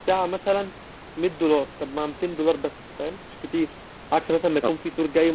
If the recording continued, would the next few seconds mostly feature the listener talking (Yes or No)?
No